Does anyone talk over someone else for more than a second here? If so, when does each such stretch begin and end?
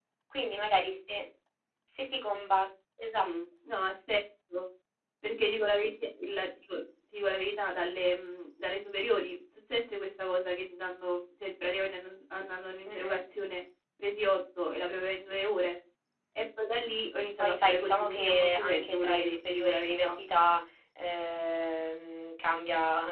17.4-20.2

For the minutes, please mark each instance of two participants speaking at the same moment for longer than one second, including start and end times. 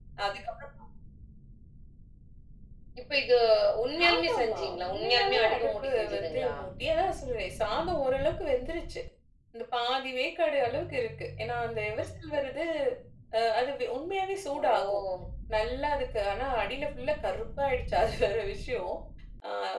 4.1-6.5

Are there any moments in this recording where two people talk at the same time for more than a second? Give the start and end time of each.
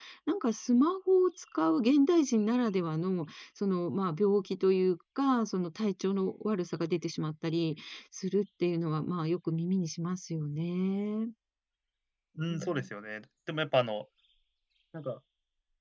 none

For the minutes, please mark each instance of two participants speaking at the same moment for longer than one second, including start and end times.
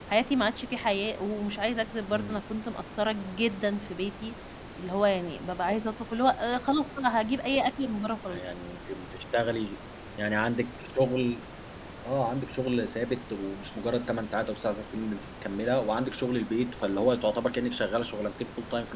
none

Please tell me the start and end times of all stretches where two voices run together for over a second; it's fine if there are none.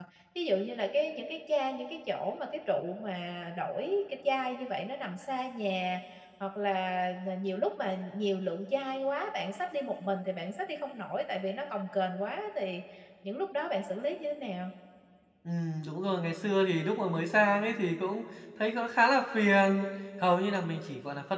none

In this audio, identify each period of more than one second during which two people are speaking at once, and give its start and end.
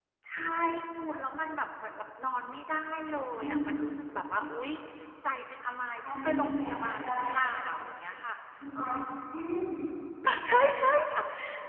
6.1-7.3

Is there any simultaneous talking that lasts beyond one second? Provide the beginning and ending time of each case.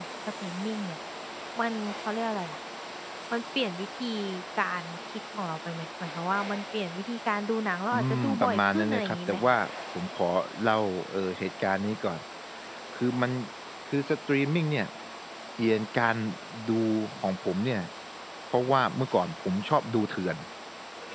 7.9-9.6

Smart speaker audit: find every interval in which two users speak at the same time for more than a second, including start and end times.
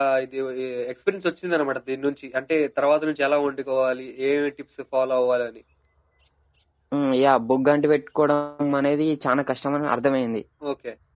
none

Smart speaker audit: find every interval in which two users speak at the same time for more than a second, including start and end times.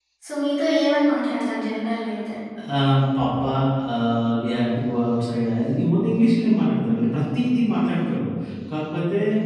none

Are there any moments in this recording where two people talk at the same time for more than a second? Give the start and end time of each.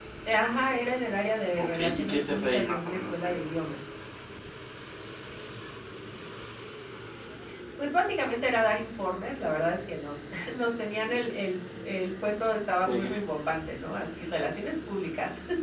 1.6-3.4

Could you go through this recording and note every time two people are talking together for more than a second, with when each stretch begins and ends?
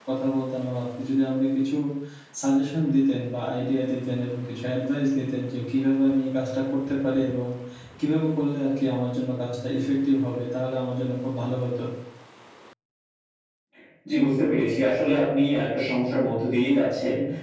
none

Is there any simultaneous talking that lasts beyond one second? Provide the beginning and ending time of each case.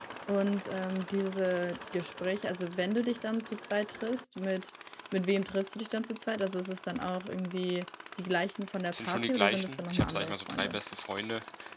8.9-10.8

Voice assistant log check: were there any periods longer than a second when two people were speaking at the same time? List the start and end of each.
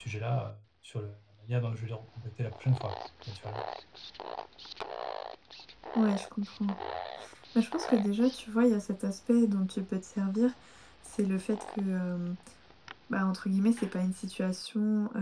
none

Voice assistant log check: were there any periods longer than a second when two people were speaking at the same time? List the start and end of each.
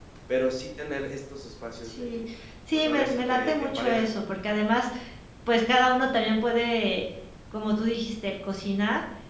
2.7-4.1

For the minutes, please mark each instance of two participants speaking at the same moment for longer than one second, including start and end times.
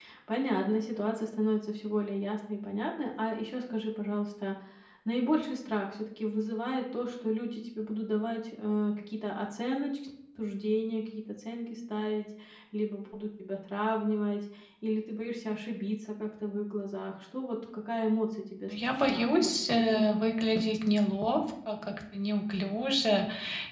18.7-20.1

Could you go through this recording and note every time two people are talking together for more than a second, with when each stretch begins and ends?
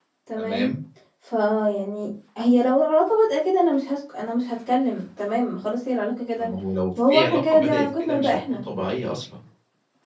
7.0-8.6

